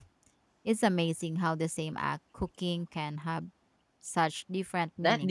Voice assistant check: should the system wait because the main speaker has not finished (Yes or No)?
No